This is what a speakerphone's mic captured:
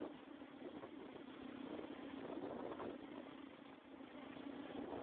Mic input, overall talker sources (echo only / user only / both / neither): neither